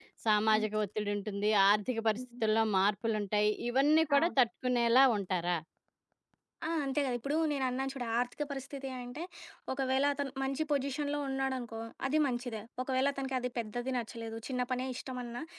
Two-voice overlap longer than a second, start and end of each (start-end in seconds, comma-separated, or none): none